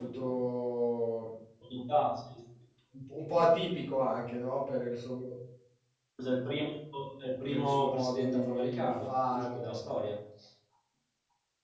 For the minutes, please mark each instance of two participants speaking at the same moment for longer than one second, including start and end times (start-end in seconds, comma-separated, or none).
7.5-9.8